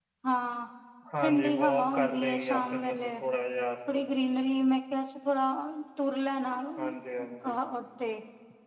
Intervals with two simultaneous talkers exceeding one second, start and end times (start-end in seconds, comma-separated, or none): 1.2-3.1